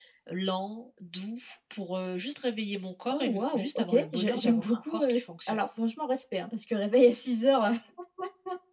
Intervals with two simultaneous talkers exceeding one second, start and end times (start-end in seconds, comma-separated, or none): 3.1-5.6